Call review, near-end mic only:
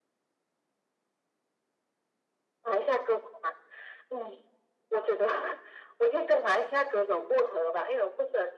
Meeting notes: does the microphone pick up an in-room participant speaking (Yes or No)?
No